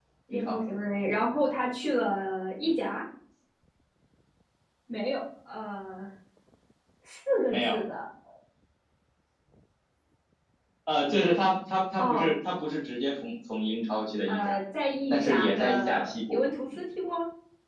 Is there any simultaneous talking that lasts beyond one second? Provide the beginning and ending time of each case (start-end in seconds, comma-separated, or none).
15.1-16.4